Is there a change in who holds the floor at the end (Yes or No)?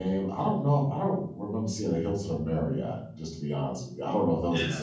Yes